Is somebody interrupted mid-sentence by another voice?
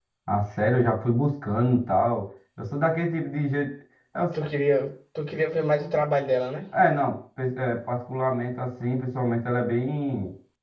No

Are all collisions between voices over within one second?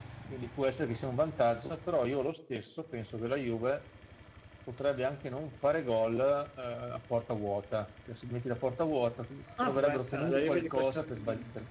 No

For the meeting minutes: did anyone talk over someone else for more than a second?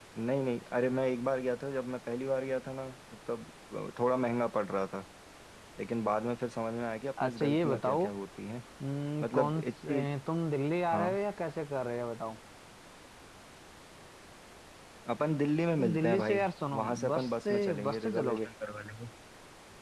Yes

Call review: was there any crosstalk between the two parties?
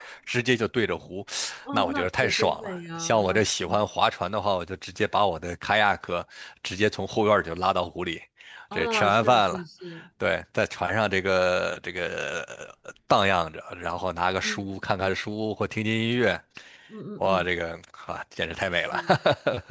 Yes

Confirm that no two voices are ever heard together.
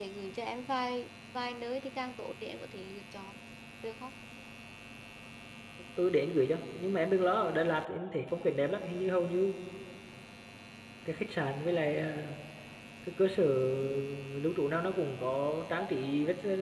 Yes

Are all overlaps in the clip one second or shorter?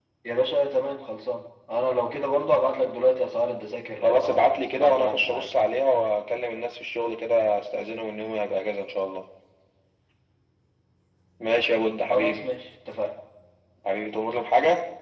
No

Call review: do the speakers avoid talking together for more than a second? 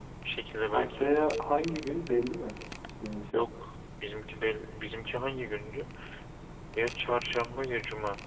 Yes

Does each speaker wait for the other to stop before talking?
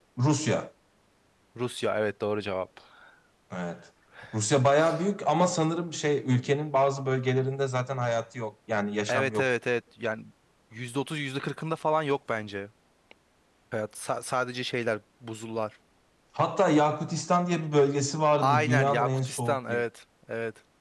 No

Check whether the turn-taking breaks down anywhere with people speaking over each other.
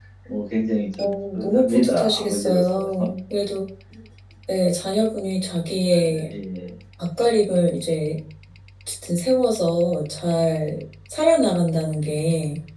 Yes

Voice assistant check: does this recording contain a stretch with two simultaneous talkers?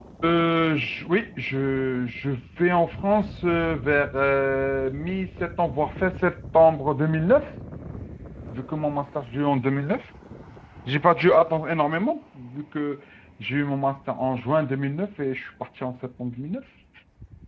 No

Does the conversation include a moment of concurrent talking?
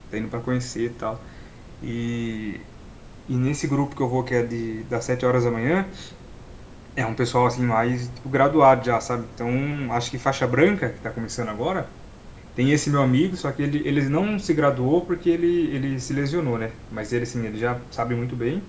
No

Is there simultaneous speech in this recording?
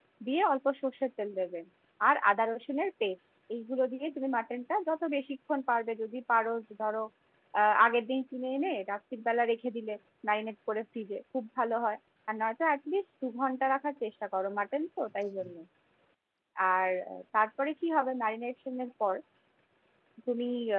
No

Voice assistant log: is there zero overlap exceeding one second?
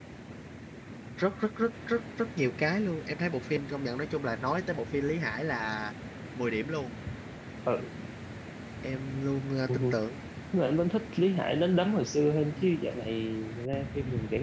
Yes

